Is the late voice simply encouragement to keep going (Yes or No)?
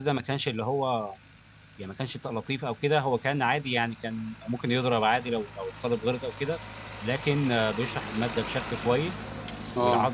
Yes